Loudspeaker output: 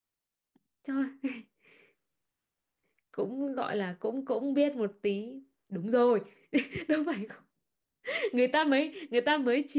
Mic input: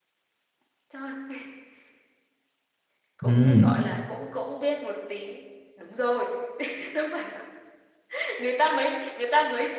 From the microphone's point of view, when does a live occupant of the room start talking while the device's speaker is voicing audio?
3.3 s

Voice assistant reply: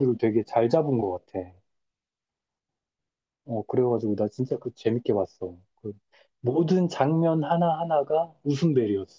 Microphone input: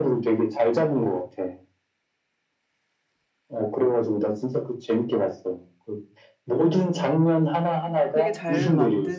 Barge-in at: 8.1 s

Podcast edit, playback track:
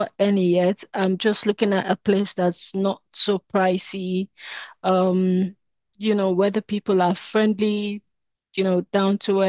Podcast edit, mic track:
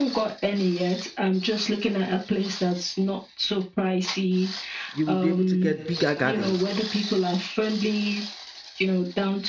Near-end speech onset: 4.9 s

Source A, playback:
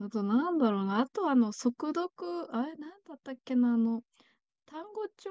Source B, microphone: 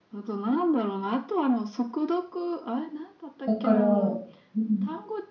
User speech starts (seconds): 3.4 s

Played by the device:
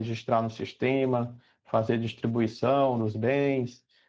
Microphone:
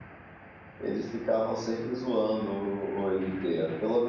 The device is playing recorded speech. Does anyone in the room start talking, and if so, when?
0.8 s

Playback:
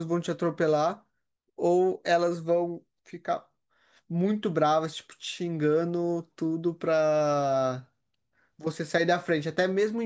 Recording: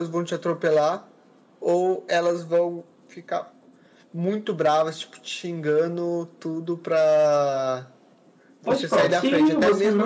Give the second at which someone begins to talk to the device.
8.6 s

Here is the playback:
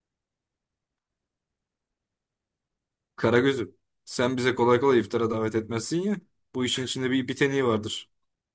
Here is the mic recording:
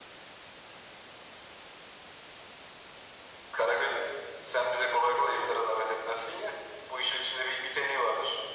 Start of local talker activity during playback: none

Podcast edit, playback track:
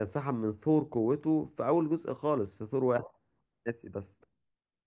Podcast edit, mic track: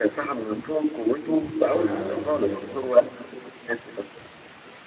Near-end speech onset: 1.5 s

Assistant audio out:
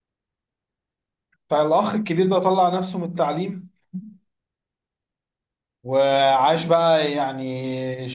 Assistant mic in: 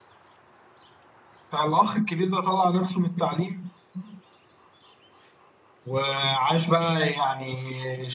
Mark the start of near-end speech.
none

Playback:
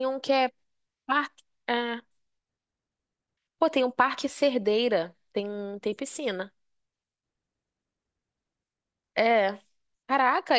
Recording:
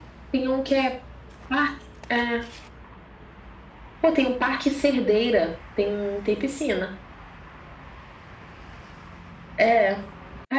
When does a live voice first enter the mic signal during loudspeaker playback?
none

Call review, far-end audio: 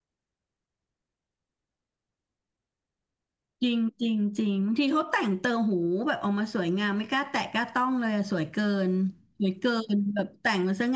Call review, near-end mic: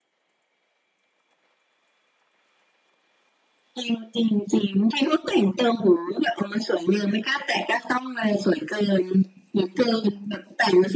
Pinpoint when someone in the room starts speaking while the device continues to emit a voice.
none

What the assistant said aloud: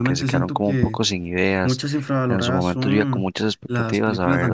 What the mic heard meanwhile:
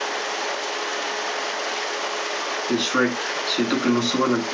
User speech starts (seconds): 2.7 s

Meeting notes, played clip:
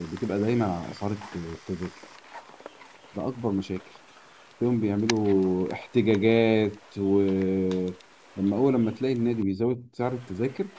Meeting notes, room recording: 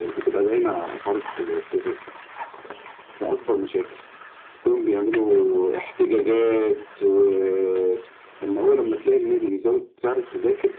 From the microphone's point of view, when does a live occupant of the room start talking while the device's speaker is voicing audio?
none

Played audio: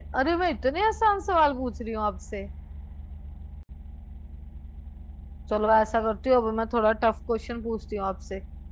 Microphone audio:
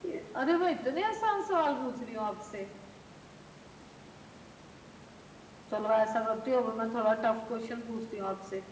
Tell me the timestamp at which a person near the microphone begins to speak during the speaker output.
none

